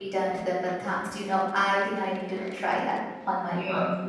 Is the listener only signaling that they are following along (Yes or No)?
No